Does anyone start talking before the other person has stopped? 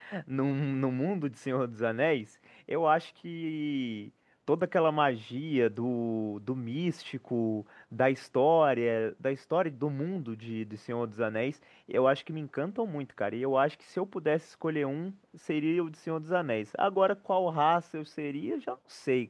No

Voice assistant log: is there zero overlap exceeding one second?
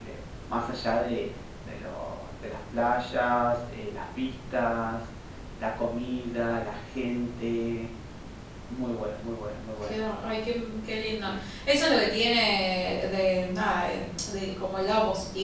Yes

